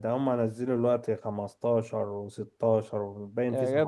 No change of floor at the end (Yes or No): No